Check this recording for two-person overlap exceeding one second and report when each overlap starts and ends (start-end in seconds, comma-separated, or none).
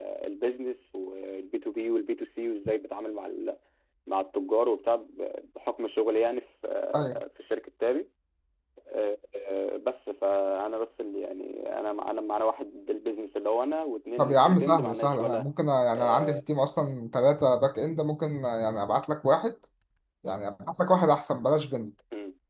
14.2-15.4